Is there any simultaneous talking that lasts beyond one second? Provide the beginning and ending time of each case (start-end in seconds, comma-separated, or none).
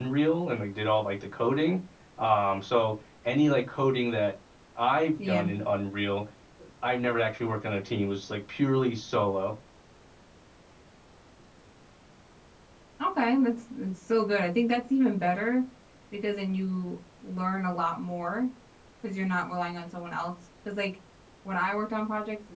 none